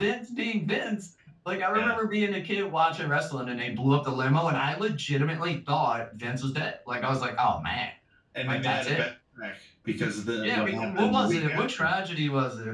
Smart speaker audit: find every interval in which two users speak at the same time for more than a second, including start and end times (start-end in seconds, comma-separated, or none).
10.4-11.9